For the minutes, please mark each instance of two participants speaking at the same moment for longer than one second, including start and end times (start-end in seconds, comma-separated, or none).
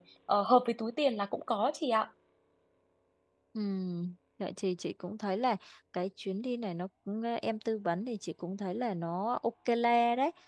none